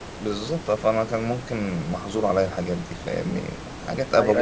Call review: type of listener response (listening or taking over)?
taking over